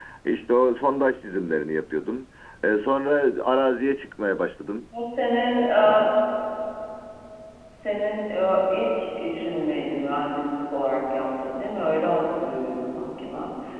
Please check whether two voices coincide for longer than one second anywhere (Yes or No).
No